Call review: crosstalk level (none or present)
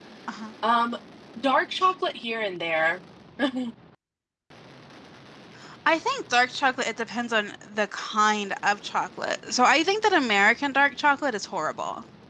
none